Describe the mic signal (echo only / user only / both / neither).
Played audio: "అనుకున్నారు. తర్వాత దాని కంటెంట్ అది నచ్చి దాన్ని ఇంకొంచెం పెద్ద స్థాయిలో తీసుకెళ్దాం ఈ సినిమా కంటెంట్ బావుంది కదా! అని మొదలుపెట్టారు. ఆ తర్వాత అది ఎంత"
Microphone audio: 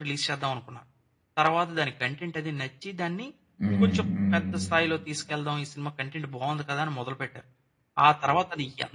both